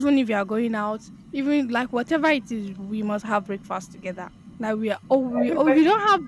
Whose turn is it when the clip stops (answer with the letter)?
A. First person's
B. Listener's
A